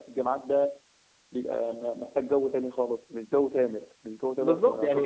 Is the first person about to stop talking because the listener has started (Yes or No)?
Yes